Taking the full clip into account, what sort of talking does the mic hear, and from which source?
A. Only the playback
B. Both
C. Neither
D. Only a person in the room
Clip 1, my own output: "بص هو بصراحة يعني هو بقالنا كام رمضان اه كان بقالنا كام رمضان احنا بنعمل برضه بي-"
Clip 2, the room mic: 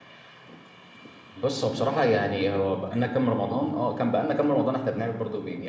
A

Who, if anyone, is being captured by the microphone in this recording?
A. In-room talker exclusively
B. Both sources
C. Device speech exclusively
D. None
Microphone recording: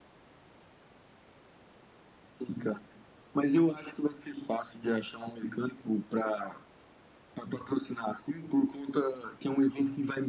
C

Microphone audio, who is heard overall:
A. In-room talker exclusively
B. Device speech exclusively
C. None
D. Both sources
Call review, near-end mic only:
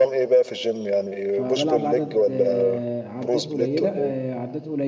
D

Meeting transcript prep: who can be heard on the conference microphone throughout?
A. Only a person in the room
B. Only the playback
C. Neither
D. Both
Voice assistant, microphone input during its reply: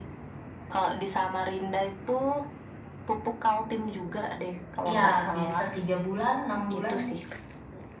D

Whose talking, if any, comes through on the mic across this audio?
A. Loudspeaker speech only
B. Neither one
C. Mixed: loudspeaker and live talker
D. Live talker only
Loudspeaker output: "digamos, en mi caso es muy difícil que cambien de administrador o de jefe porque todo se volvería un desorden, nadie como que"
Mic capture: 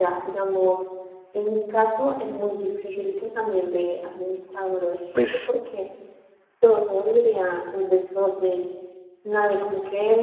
C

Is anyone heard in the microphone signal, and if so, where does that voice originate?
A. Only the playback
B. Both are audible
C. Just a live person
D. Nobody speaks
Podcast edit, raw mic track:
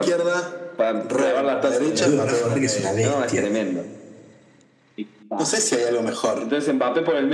B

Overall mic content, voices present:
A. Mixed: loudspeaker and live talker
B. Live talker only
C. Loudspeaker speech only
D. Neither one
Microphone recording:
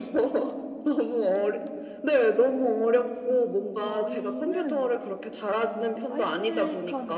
A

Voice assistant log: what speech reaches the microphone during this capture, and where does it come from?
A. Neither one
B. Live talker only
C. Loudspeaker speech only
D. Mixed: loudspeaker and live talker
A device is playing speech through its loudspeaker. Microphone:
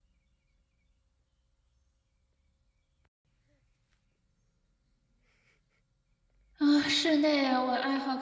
B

